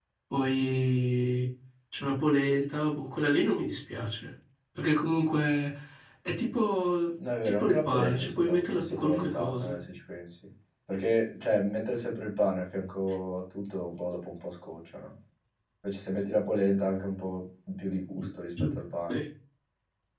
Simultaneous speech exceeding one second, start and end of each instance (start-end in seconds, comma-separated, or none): 7.4-9.8